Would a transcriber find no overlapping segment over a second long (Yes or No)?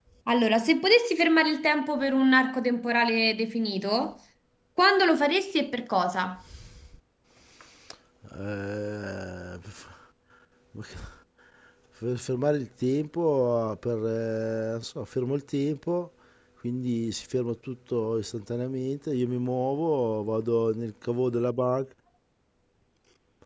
Yes